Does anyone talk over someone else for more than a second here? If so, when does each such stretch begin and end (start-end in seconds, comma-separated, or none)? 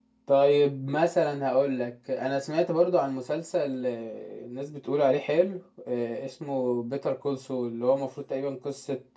none